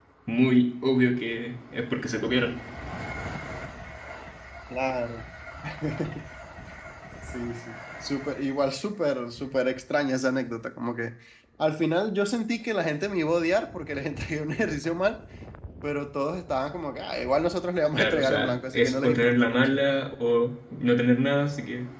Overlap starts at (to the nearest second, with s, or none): 18 s